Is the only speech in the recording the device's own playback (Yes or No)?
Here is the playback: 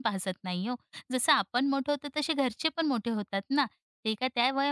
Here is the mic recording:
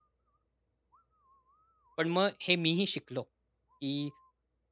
No